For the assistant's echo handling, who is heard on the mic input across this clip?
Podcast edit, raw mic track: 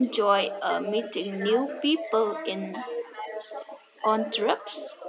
both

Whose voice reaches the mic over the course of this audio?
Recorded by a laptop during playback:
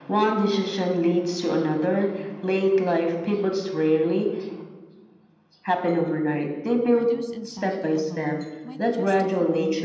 both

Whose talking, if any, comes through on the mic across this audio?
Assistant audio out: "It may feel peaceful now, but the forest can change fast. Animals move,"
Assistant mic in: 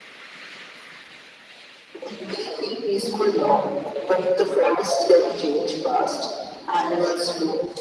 echo only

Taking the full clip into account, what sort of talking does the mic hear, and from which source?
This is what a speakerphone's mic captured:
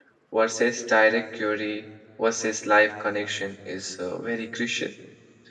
user only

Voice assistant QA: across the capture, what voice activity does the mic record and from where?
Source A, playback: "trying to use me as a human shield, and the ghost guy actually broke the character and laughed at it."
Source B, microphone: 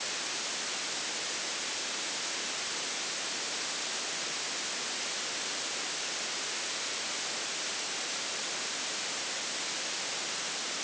neither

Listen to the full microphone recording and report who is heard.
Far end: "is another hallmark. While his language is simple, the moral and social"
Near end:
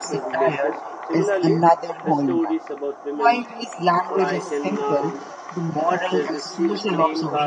both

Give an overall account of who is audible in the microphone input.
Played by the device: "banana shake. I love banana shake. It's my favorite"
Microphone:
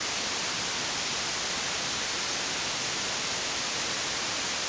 neither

